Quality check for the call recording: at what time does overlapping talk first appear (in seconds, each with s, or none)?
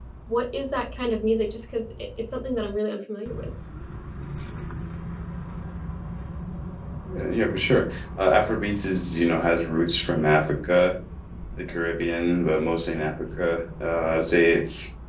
none